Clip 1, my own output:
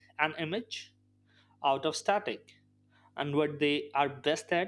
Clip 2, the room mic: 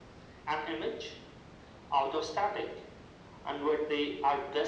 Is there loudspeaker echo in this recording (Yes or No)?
Yes